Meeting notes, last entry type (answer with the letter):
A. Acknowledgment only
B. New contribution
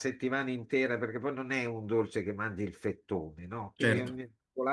A